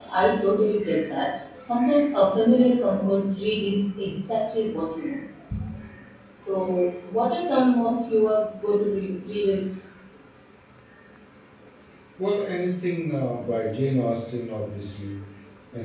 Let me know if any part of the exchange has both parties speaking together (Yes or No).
No